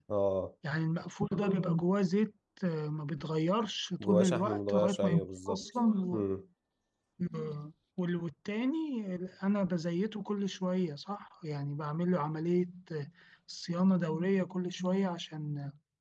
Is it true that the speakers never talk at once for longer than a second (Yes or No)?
No